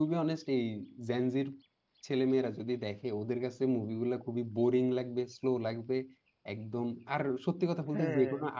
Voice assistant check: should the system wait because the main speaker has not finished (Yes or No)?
Yes